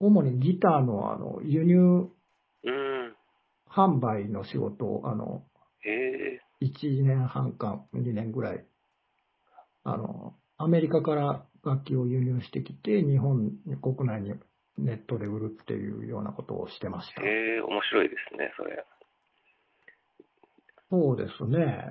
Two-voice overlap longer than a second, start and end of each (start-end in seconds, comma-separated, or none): none